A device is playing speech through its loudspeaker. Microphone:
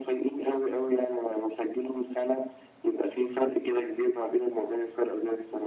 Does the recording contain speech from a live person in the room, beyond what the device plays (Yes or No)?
No